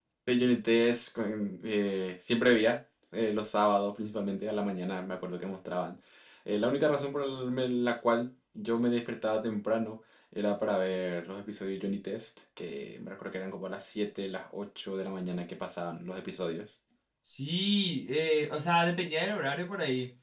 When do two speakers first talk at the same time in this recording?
none

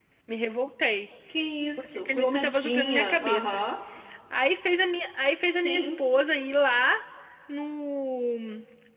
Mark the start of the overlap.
1.8 s

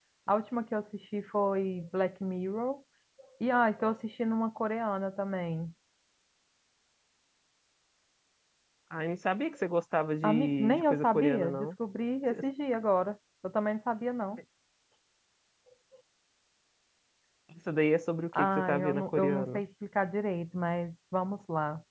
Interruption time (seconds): 10.2 s

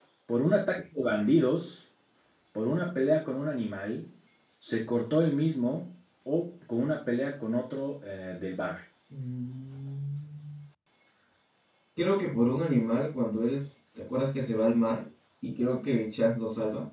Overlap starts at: none

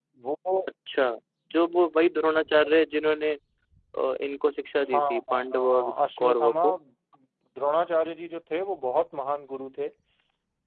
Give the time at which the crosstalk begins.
4.9 s

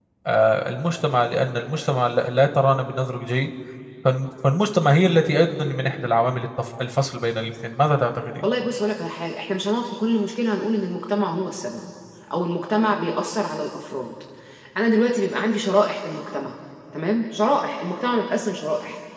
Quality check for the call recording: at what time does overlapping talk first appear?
none

